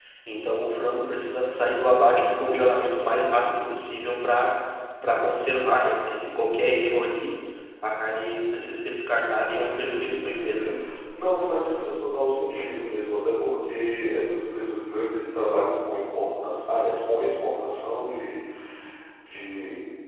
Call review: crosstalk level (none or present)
present